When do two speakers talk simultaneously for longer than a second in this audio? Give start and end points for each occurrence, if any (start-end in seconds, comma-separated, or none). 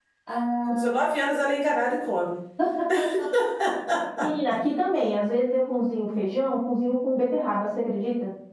none